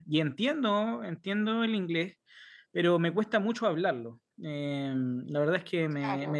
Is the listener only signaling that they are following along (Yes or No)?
Yes